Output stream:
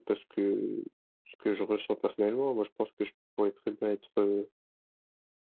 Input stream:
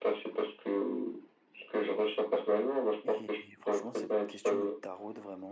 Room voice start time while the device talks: 3 s

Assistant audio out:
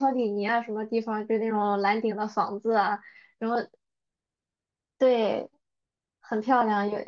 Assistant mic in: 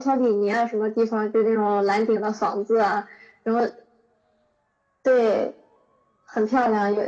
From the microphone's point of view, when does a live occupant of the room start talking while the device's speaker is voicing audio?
none

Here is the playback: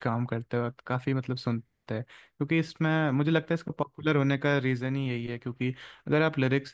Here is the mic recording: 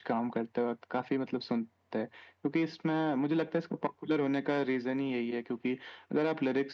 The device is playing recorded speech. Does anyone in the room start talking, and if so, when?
none

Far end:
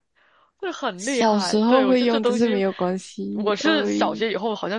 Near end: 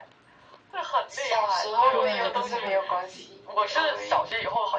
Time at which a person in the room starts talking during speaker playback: 2 s

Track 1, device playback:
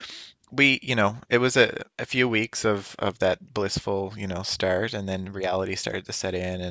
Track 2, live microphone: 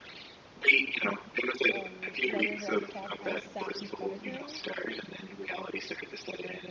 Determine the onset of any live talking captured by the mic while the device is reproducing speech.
2 s

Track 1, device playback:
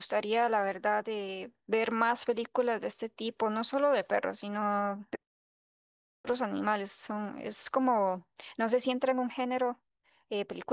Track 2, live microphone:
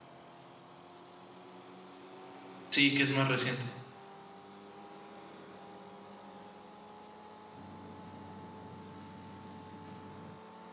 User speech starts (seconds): 3 s

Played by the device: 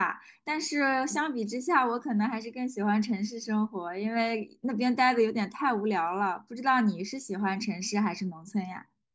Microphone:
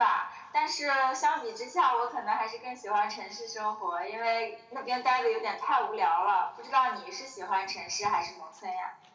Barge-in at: none

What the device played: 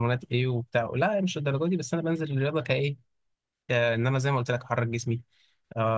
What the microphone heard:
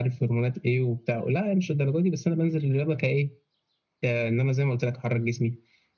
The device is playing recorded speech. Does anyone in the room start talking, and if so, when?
none

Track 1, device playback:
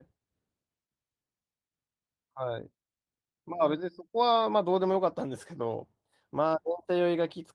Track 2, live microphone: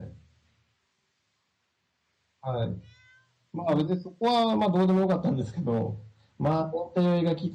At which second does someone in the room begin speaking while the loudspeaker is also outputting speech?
none

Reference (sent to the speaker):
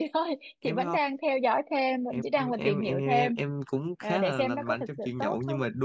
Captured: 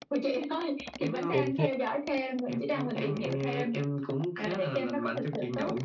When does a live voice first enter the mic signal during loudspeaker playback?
1 s

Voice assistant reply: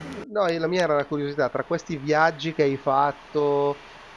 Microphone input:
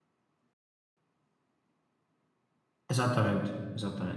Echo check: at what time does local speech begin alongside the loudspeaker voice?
3 s

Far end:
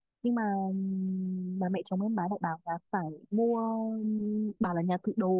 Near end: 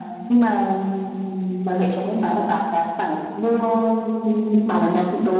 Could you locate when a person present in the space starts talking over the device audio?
none

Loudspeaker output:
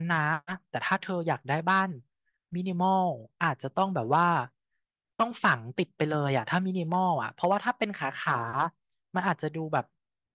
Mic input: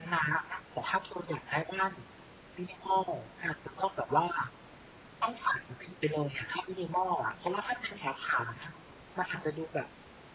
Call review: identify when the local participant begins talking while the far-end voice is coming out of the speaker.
none

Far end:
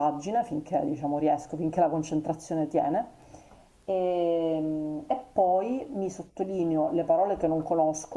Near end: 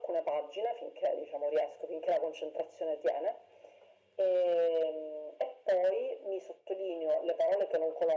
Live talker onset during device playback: none

